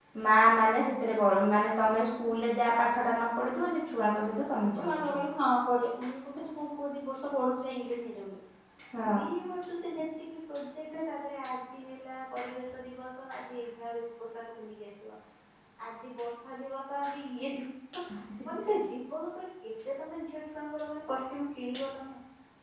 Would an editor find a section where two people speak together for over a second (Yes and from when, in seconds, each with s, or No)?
No